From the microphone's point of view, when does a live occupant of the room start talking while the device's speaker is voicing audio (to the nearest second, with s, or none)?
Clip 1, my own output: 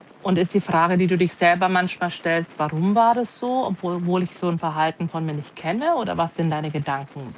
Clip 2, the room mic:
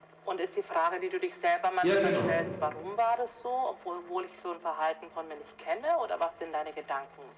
2 s